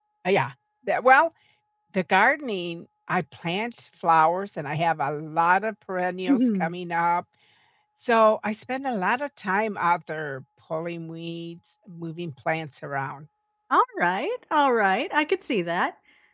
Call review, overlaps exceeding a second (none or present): none